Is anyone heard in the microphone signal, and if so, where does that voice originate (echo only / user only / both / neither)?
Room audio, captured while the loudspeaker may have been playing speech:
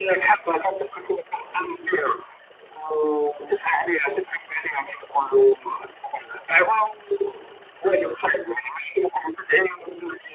echo only